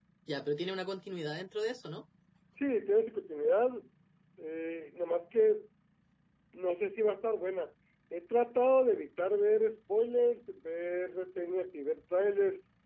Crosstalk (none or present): none